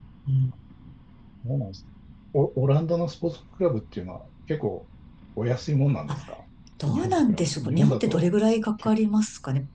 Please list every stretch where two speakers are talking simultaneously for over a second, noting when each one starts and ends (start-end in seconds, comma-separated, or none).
6.9-8.3